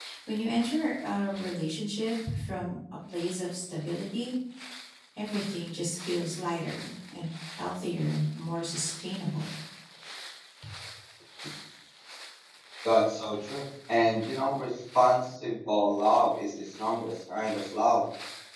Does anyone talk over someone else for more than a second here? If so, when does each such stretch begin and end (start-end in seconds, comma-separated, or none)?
none